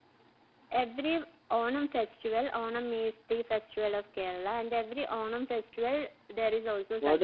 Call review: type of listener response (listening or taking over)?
taking over